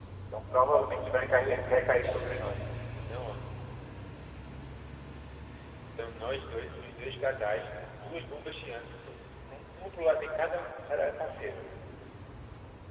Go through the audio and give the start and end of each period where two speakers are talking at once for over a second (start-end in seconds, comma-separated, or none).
none